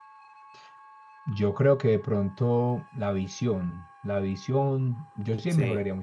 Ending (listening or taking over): listening